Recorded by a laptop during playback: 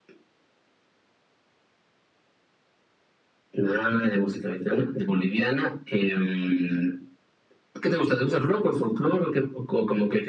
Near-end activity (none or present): none